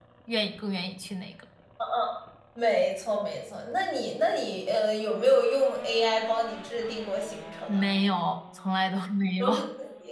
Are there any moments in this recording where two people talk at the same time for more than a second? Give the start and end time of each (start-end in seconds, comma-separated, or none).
none